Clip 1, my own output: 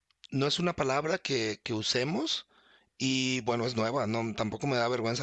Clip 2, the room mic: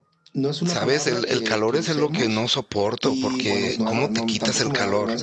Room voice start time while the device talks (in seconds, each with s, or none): 0.6 s